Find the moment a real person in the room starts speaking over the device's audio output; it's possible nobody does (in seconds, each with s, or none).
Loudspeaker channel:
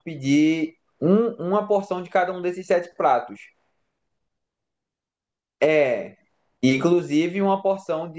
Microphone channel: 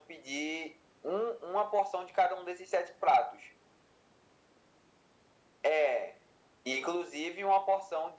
none